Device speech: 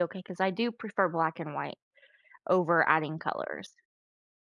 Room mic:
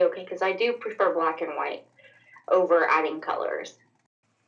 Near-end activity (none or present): none